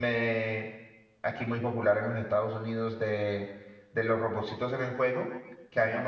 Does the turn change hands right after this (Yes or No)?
No